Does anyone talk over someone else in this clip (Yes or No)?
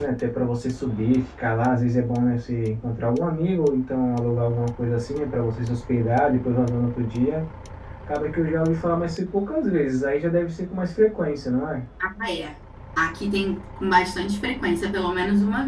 No